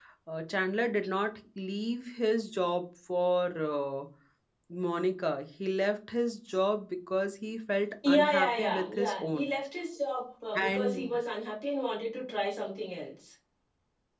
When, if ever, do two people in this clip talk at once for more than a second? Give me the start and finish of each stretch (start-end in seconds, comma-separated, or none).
8.1-9.5